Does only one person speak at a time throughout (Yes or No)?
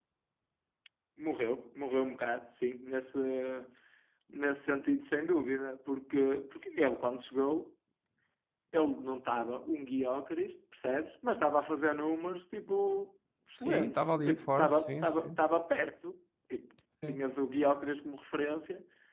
No